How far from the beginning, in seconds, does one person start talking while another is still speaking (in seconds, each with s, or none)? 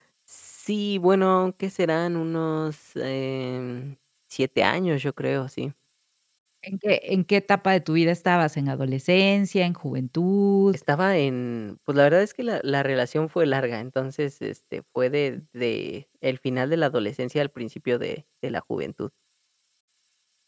none